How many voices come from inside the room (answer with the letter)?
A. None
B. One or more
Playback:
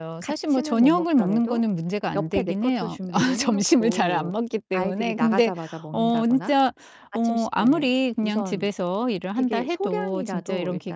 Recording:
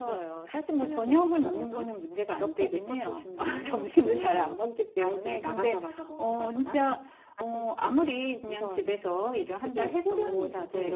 A